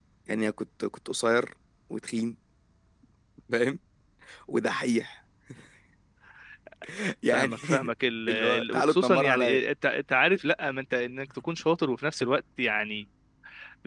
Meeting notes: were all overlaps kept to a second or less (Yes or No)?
No